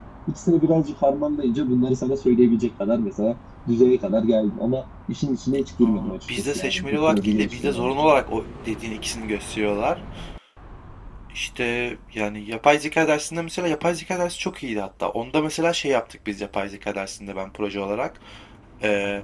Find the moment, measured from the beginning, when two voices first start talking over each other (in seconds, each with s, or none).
5.8 s